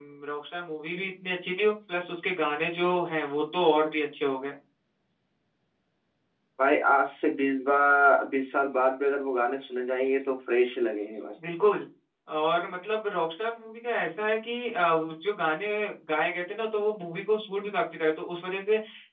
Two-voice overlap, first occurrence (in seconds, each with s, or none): none